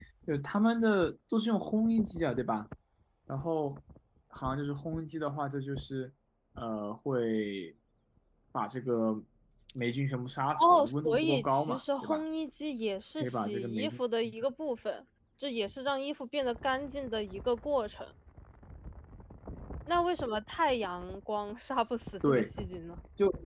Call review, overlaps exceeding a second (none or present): present